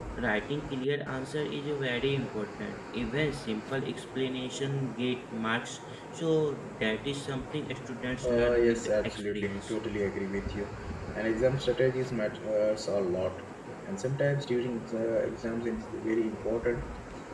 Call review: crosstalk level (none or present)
present